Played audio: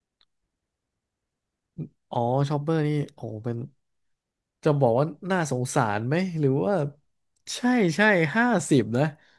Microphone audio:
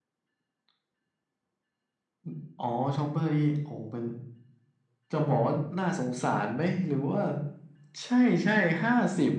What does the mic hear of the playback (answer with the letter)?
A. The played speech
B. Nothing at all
A